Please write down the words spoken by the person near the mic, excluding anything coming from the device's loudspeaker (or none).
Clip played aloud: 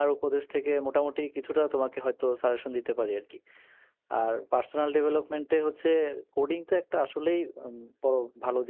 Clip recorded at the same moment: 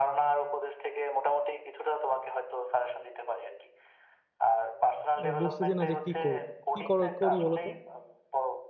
আহ, বুঝতেছি না যে কি করব কি কর- করি বলো তো